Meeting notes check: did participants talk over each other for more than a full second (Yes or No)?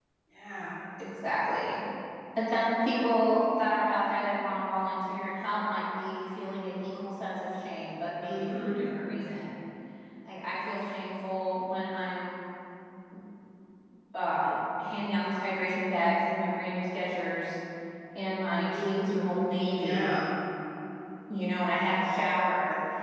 No